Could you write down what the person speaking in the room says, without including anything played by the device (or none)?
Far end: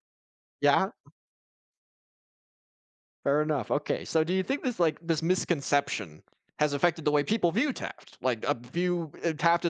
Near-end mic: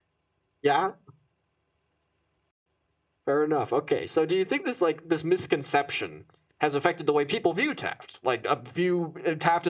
none